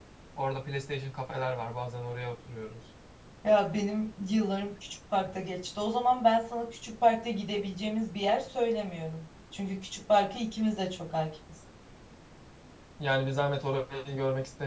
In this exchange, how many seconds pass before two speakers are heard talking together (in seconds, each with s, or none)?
none